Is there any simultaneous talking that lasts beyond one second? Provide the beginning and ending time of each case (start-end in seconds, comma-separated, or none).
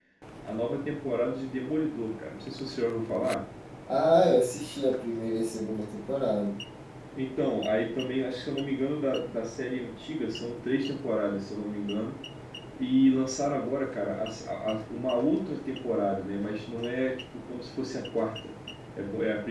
none